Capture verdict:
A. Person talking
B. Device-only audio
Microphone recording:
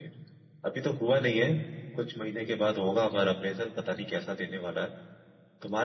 B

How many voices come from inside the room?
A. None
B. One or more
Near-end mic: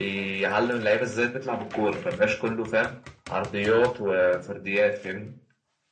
A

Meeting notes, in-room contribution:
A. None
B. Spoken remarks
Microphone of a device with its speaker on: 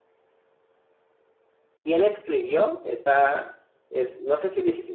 B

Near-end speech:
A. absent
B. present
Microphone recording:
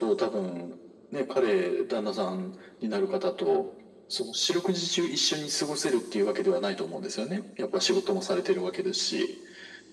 A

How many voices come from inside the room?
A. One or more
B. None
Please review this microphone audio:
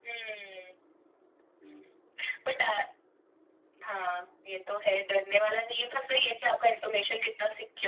B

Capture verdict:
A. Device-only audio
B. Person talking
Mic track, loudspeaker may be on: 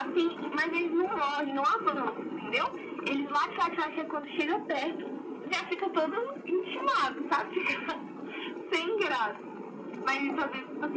A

